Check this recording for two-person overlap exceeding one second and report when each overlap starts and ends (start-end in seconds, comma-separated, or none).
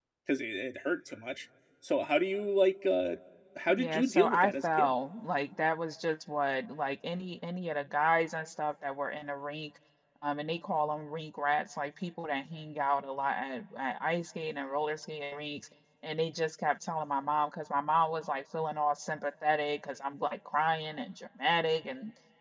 3.7-5.0